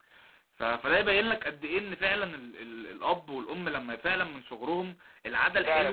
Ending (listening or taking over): taking over